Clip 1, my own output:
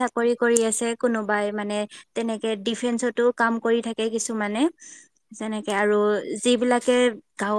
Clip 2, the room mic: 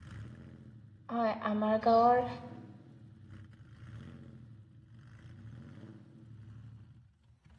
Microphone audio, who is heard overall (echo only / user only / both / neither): user only